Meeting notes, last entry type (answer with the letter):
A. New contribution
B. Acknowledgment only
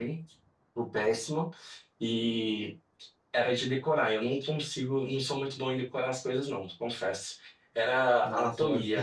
A